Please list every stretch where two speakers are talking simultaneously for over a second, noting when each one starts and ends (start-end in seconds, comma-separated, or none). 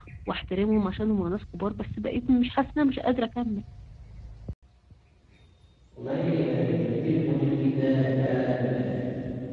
none